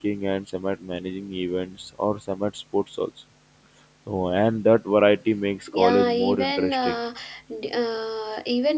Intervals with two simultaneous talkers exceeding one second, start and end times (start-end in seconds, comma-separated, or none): 5.7-7.0